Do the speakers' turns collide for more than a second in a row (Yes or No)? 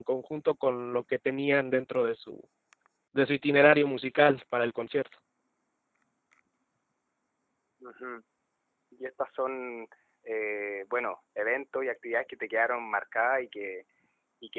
No